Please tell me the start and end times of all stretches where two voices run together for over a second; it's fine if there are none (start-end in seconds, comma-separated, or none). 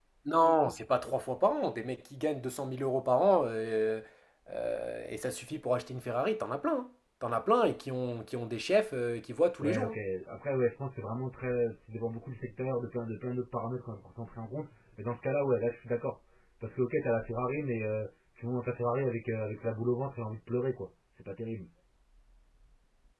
none